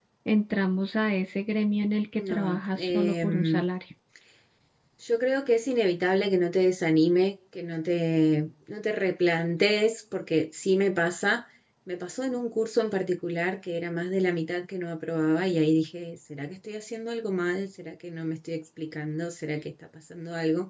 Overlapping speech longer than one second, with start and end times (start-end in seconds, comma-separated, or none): 2.2-3.6